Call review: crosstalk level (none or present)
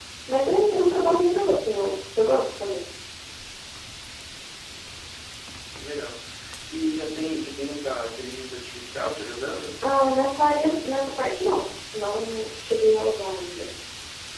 none